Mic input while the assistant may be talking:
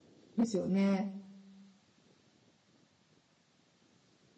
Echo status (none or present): none